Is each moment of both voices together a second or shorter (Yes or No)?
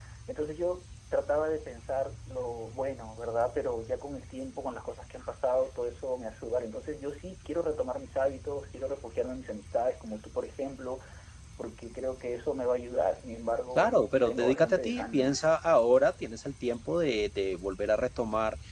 No